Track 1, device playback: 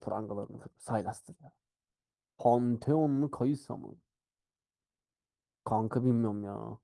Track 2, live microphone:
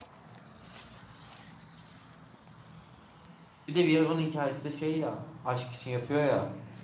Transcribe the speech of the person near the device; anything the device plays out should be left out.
Bir de Viego'nun hikayesi de şey ya aşk için yapıyor ya.

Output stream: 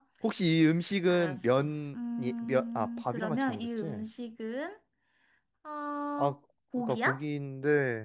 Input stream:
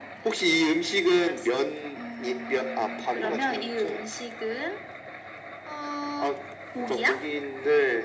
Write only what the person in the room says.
none

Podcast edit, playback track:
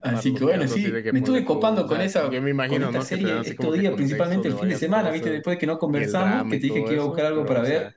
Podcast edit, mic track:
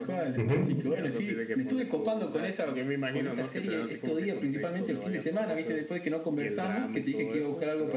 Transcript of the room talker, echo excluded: Ujú,

